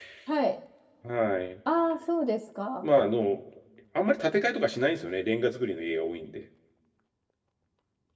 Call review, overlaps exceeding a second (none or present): none